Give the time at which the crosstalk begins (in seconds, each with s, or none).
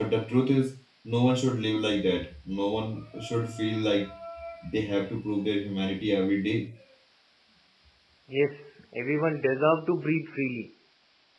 none